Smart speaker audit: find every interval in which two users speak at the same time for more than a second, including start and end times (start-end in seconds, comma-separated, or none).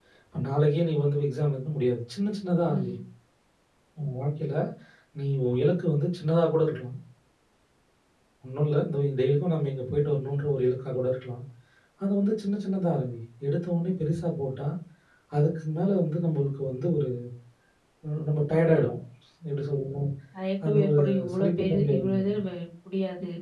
20.7-22.4